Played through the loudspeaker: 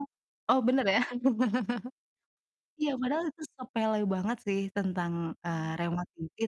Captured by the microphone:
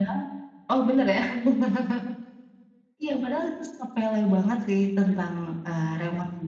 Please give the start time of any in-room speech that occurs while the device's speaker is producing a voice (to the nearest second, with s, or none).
none